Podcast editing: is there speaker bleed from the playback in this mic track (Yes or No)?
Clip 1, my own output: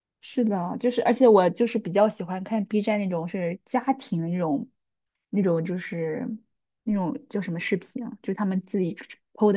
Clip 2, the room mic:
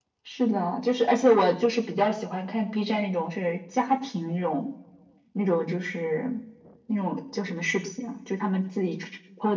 Yes